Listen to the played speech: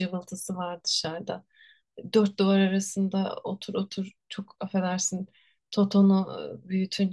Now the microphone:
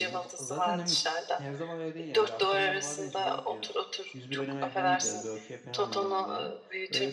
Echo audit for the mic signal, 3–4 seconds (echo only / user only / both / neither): both